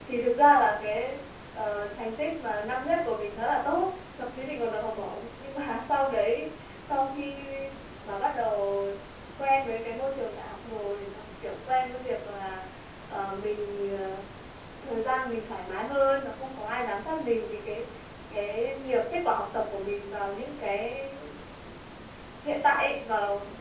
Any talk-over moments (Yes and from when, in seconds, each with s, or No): No